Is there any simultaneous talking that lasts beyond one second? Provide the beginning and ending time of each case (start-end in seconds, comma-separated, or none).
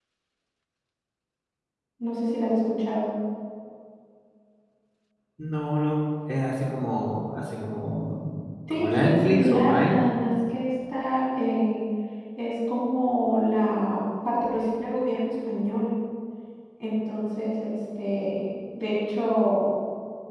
8.7-10.0